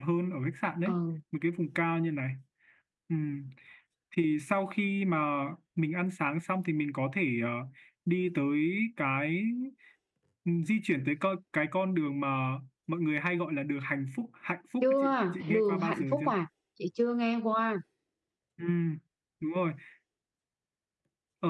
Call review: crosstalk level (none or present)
present